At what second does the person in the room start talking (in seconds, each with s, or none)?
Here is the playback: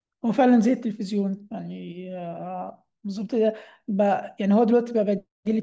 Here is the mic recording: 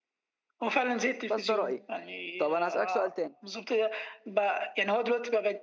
1.3 s